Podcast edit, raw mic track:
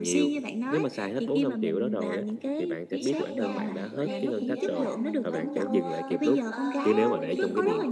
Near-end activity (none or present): present